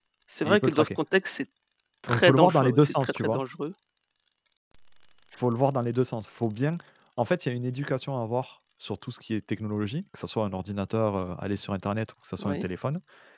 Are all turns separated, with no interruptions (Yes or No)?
No